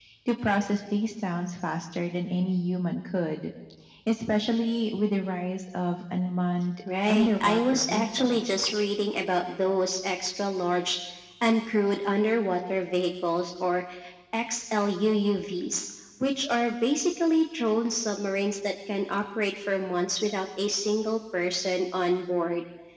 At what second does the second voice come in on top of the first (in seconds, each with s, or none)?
6.9 s